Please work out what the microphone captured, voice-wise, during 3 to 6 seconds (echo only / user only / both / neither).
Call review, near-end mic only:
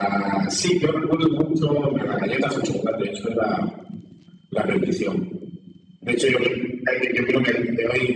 echo only